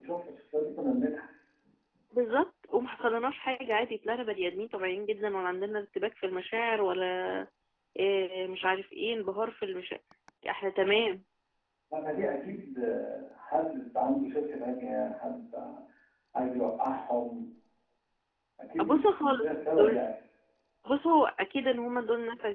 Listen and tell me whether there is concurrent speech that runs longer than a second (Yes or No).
Yes